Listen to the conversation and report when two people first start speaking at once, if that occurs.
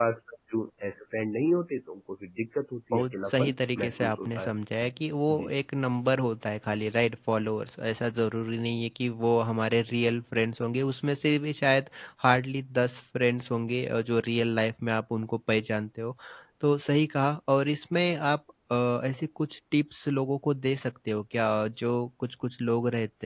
2.9 s

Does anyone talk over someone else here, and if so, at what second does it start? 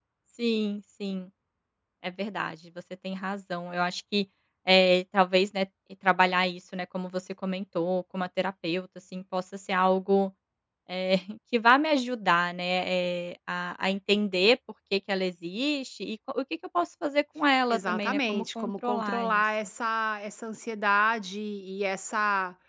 17.7 s

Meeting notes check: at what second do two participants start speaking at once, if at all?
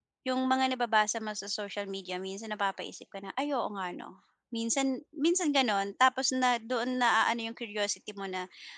none

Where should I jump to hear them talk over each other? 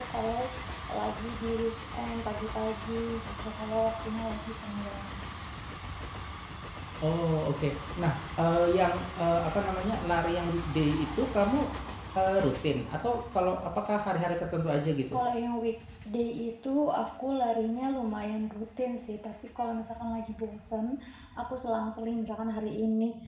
none

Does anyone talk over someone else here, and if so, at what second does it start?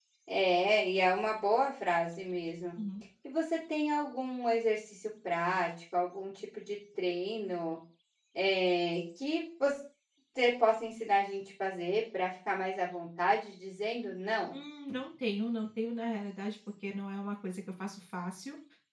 none

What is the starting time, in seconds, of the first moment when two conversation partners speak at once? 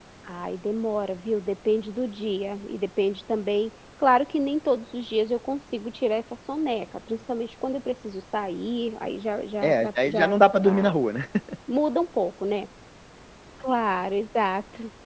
9.6 s

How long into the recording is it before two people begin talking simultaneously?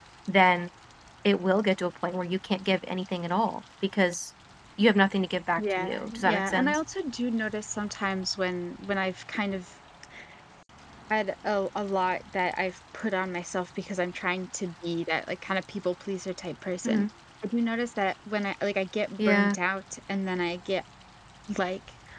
5.6 s

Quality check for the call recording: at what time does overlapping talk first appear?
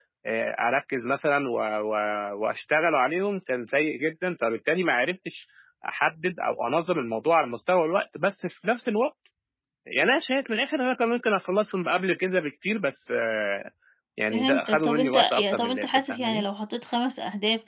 14.3 s

